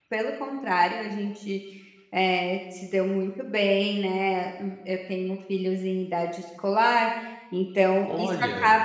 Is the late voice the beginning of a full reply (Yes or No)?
No